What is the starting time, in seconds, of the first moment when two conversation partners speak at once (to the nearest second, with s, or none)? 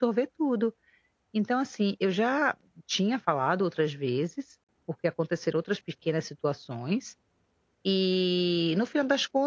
none